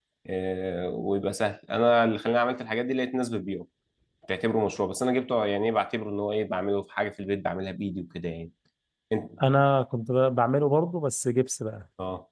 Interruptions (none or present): none